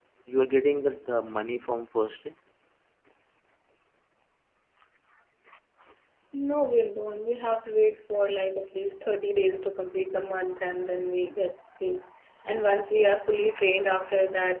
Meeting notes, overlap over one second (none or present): none